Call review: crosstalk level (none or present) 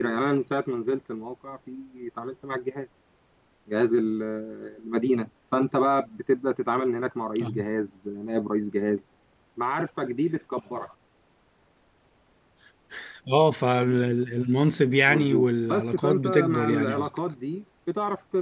present